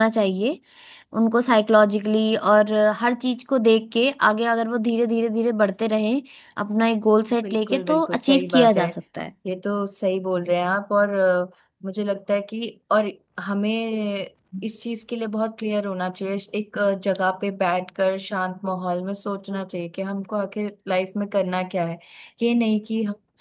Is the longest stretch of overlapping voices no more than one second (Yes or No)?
No